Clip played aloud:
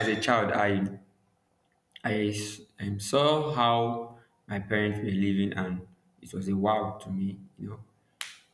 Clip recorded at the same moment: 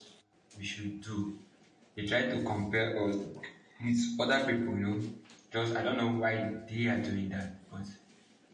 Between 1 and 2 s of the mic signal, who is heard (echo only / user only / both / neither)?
user only